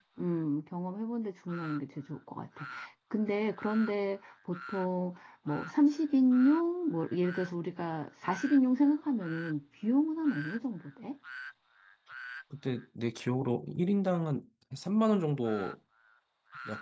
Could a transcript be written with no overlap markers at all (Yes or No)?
Yes